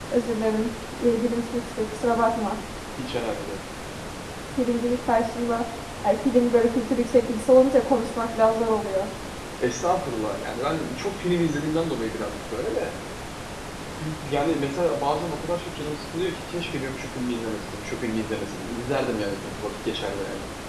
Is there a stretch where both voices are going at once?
No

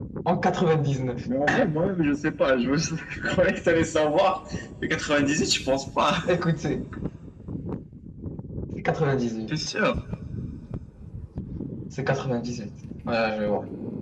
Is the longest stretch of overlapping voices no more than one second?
Yes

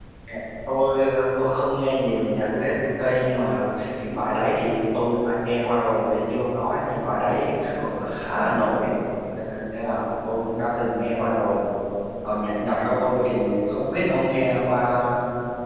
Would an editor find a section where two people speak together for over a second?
No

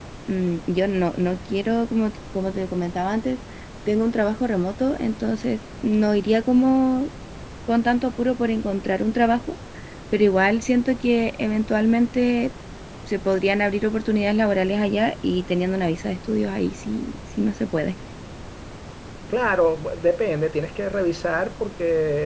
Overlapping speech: No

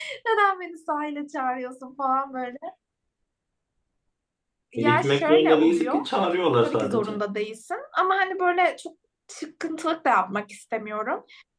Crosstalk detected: Yes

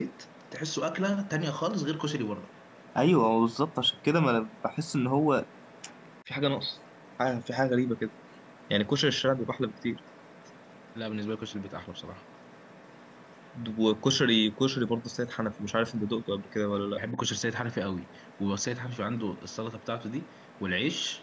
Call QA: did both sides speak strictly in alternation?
Yes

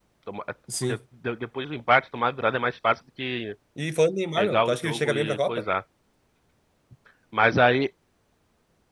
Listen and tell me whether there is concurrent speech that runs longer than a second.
Yes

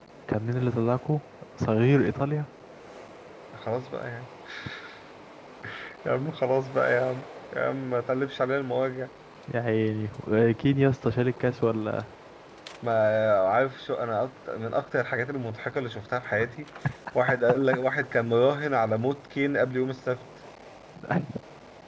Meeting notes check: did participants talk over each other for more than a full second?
No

